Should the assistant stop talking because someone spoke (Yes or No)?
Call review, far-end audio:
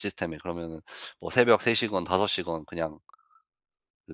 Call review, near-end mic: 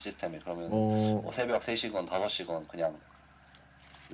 Yes